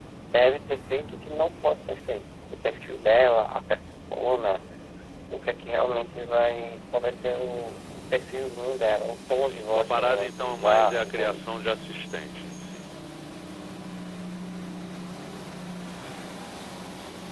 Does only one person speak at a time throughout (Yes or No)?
No